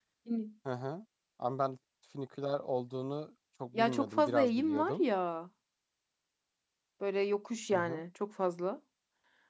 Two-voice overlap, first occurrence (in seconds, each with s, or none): 3.7 s